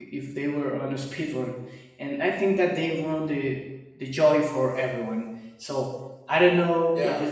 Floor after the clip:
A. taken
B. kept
A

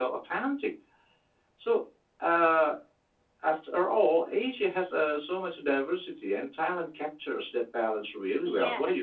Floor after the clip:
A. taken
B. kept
A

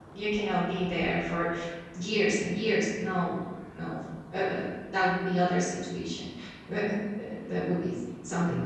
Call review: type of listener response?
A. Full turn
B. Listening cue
B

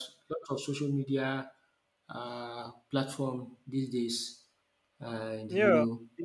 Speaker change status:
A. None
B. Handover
B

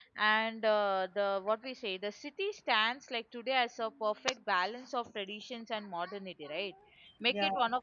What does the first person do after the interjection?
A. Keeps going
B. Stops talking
A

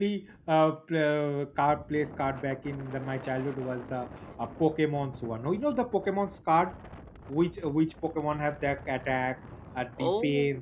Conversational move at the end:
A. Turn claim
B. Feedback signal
B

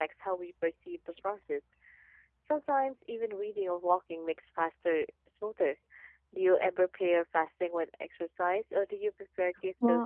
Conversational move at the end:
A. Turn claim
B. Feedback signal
A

